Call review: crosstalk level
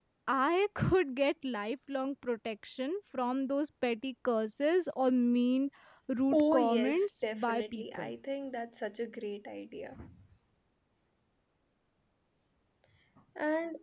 present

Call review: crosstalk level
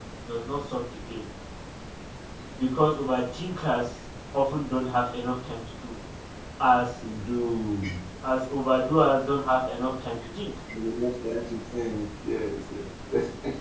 none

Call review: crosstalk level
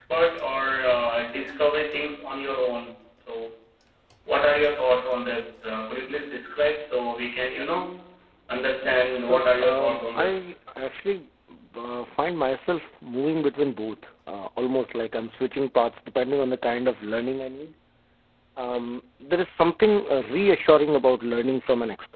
present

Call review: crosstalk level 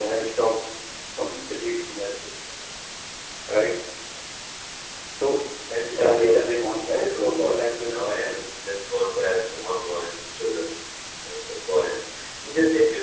present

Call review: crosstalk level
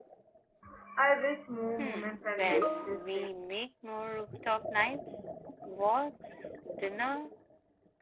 present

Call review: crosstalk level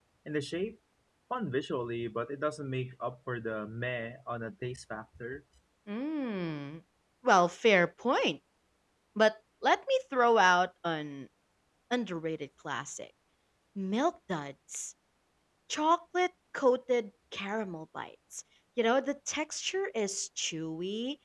none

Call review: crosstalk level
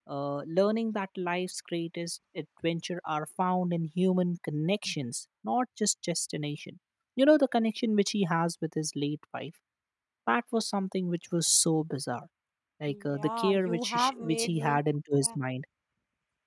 present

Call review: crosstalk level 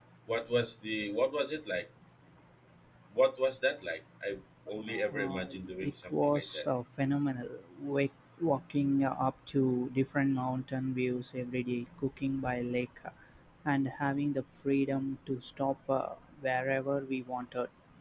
present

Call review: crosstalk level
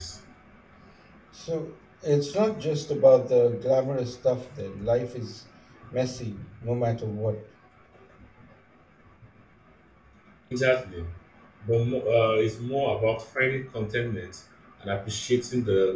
none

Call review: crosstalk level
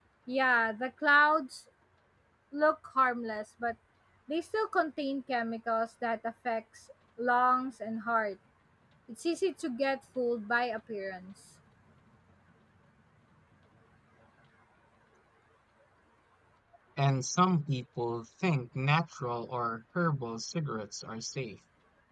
none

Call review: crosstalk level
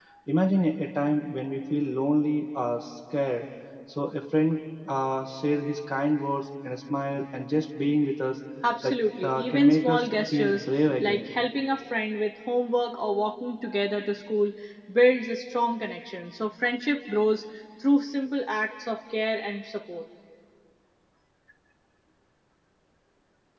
present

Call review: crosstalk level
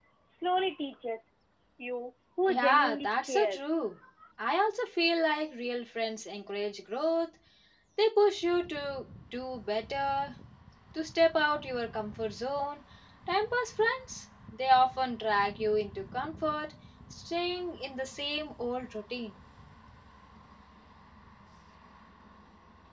present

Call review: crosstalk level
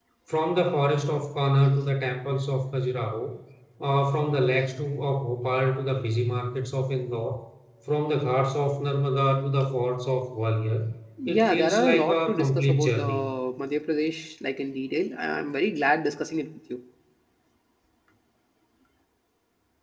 present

